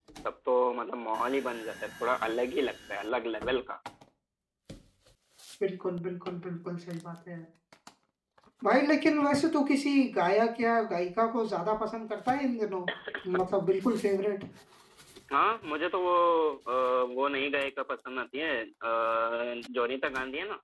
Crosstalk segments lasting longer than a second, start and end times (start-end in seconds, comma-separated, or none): none